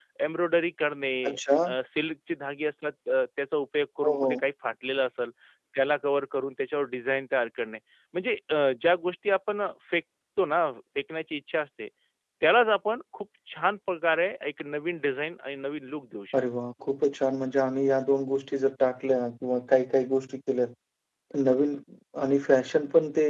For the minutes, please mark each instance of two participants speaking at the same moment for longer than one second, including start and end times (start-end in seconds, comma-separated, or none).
none